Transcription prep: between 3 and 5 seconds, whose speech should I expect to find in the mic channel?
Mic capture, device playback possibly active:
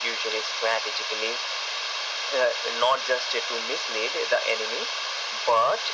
echo only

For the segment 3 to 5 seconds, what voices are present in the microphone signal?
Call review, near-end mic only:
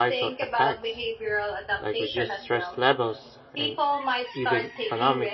both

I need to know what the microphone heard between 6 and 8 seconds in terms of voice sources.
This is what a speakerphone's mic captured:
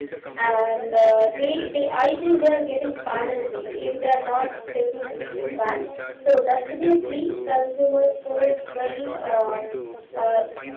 both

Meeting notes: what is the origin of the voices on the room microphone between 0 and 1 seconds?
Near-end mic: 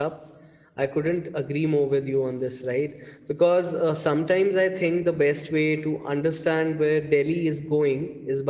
user only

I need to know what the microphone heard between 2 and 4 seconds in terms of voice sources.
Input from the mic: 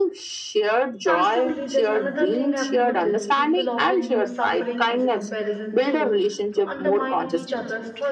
both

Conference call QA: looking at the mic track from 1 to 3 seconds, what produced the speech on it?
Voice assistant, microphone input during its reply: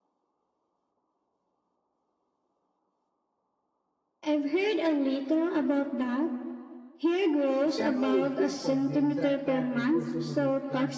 neither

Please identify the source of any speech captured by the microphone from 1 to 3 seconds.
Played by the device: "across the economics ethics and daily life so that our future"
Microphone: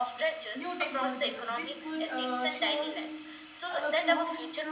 both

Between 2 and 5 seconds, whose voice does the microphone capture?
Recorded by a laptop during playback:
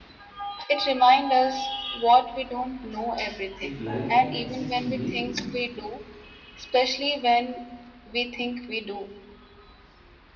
both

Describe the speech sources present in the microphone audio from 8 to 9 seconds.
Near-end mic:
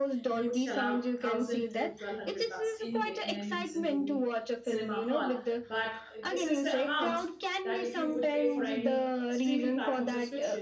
both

